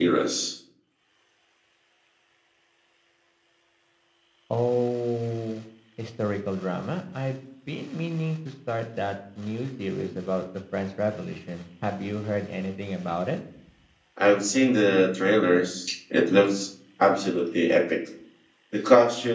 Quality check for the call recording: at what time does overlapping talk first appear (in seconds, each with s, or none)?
none